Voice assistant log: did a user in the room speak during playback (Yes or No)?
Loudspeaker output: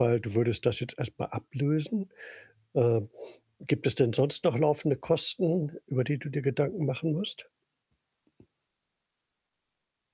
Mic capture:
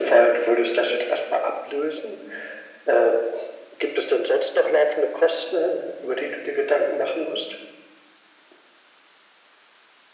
No